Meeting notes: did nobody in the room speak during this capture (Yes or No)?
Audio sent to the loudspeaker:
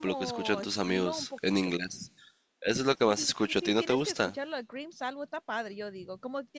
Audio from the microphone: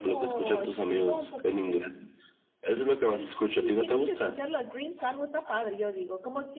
Yes